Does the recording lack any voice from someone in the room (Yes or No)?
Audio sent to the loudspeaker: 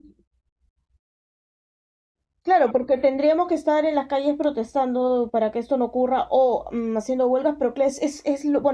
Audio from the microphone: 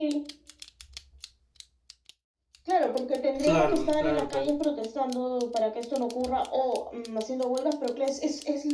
No